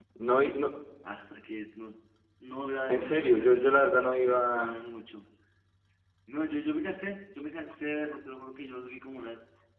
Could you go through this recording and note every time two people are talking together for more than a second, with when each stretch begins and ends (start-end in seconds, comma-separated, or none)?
2.9-4.8